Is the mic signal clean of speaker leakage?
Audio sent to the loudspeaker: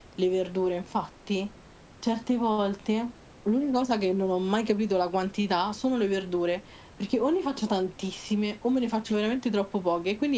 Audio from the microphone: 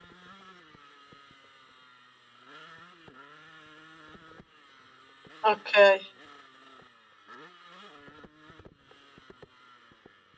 Yes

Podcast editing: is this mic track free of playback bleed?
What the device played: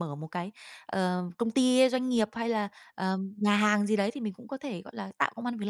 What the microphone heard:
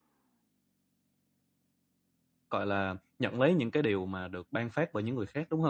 Yes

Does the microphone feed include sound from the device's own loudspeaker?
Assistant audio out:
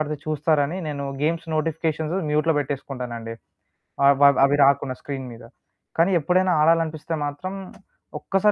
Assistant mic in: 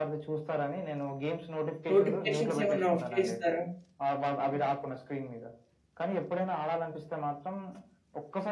Yes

